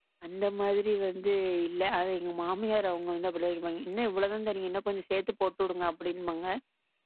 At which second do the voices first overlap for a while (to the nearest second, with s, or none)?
none